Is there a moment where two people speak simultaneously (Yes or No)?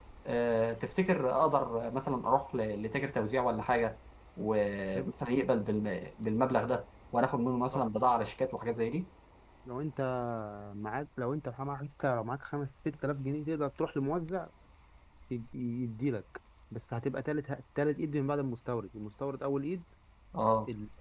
No